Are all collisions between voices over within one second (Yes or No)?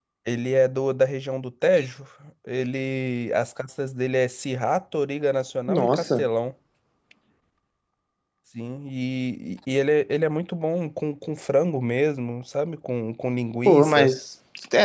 Yes